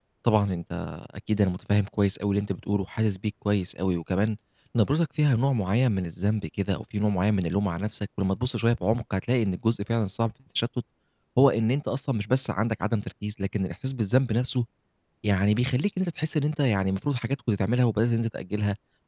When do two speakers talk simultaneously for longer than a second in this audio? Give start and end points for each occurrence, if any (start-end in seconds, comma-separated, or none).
none